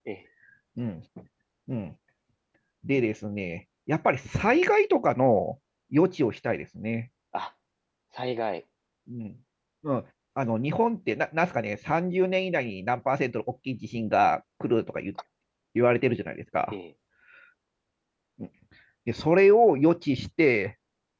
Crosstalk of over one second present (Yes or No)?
No